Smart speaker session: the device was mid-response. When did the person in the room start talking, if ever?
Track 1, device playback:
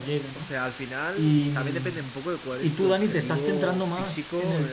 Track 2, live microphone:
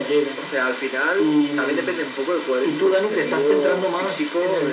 none

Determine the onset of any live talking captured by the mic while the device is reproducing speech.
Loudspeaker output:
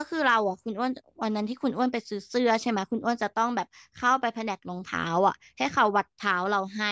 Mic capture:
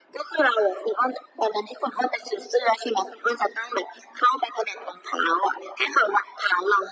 none

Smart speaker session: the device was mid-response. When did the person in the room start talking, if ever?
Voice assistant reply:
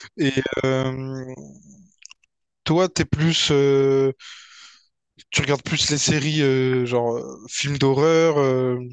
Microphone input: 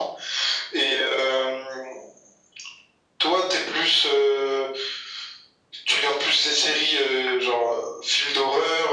none

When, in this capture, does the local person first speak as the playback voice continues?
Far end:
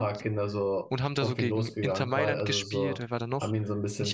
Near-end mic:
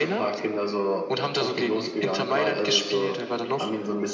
none

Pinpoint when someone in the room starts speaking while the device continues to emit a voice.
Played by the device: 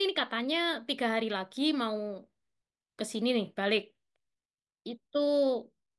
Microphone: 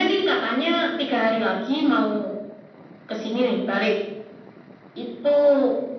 none

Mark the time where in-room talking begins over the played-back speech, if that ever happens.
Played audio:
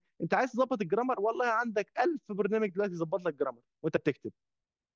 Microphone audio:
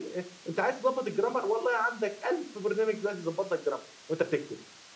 none

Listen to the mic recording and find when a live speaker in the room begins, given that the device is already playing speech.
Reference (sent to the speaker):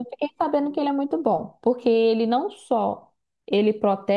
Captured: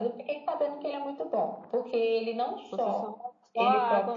3 s

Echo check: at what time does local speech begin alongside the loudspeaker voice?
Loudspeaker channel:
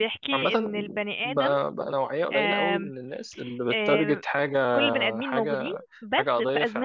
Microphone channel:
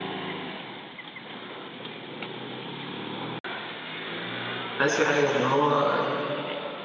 5 s

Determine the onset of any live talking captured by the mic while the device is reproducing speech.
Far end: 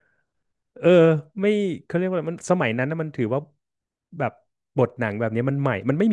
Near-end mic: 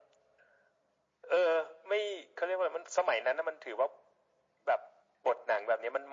none

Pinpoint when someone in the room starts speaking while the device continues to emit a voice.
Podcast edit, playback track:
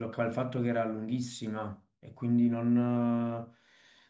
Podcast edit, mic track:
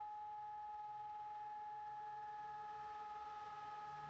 none

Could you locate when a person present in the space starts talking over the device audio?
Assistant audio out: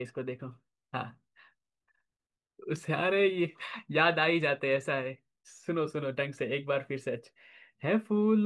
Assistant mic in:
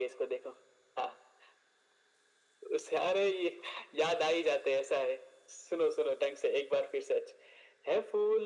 none

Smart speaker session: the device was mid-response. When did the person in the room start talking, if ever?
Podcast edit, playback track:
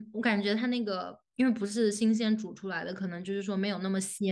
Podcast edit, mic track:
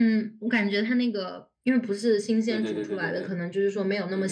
2 s

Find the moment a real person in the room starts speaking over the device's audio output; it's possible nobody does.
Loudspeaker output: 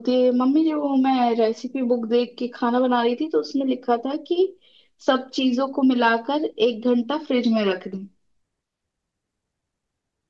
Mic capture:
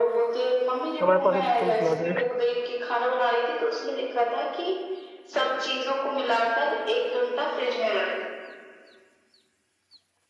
1 s

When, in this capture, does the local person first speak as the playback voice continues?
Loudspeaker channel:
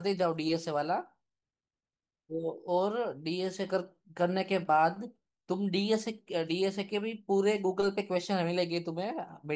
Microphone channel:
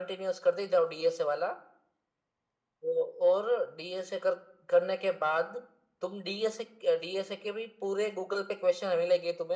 none

